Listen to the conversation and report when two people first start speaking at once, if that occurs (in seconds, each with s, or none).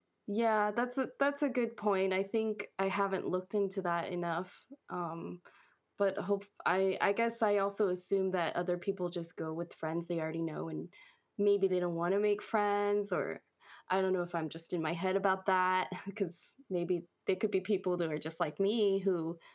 none